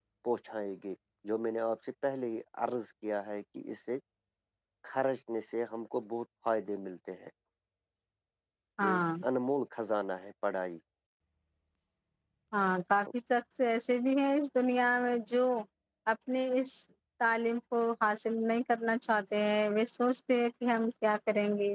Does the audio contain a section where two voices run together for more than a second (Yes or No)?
No